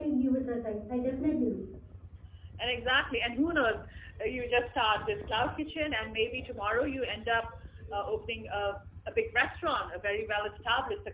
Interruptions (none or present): none